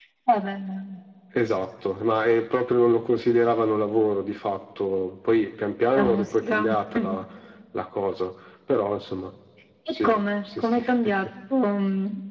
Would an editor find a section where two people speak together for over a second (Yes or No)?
Yes